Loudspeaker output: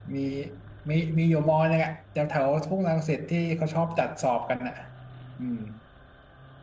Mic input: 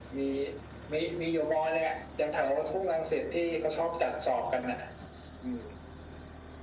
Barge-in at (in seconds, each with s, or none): none